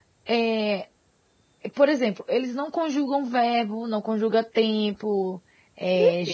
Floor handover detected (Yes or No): No